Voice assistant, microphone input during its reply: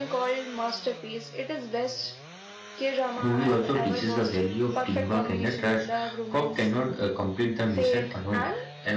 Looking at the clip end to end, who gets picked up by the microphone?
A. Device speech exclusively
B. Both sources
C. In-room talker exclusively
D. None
B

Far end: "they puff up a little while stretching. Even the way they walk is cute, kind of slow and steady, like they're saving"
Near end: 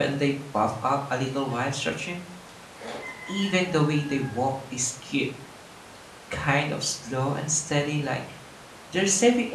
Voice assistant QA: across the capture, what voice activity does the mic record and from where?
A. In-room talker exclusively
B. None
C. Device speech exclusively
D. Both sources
C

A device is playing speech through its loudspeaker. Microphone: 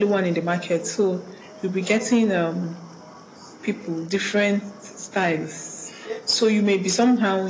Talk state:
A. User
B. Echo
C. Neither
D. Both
B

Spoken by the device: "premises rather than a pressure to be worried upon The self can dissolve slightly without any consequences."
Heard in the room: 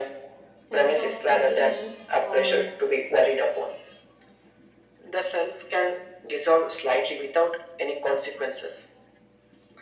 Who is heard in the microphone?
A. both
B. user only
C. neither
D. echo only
A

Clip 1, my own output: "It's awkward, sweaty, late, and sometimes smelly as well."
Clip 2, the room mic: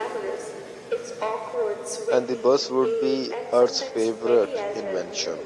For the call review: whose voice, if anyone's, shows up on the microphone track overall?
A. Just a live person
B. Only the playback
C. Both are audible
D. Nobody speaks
C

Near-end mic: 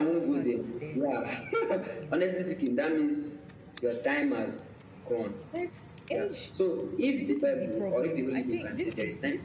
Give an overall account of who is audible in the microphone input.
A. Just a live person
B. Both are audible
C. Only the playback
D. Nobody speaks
B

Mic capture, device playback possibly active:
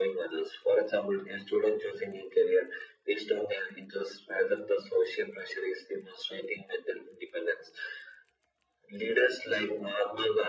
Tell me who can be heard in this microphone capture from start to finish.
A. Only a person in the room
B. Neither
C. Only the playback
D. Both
C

